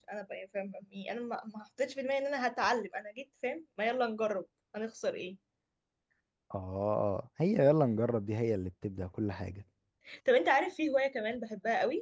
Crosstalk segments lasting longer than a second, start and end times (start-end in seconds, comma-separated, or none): none